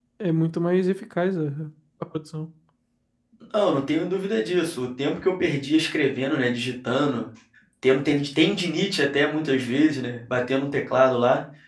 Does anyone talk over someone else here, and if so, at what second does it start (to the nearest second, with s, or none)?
none